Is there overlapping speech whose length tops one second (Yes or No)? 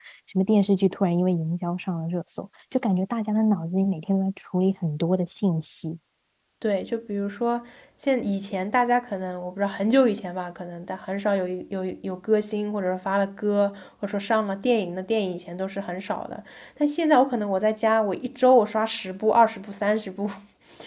No